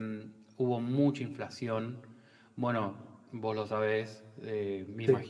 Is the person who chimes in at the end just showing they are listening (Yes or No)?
Yes